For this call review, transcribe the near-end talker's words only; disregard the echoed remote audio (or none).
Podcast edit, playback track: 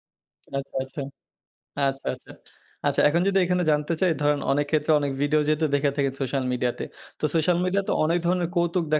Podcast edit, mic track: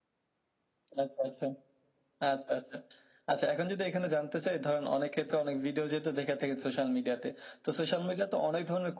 none